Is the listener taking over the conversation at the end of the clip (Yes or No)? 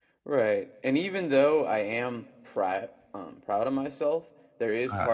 No